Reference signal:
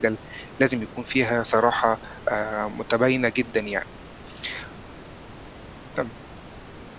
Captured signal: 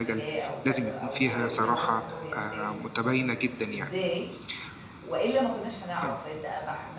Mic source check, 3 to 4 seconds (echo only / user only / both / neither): both